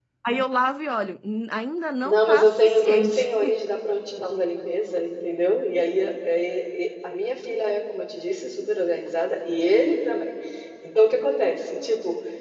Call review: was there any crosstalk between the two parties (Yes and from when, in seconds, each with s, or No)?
Yes, from 2.0 s